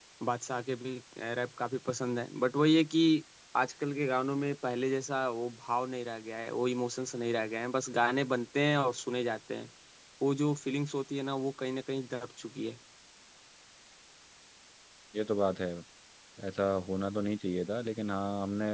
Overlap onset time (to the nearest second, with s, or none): none